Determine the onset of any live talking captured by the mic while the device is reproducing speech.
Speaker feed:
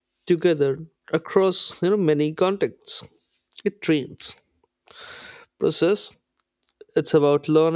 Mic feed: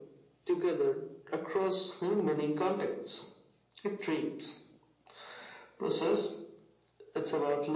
none

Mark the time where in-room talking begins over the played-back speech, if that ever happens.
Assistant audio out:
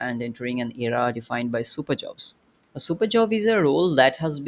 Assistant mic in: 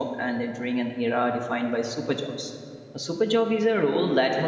none

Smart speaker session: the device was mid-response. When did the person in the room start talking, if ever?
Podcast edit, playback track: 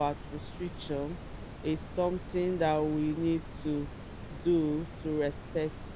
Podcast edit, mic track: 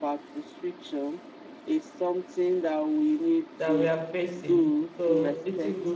3.6 s

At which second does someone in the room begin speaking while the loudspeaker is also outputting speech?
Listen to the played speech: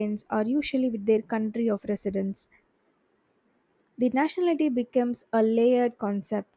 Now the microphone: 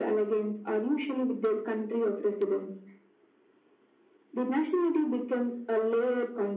none

